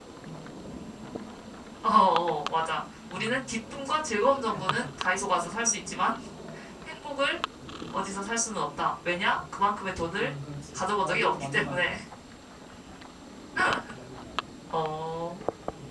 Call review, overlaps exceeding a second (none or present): present